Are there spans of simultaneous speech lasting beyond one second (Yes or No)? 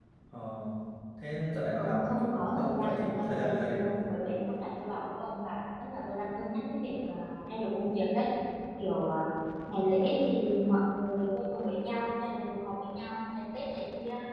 Yes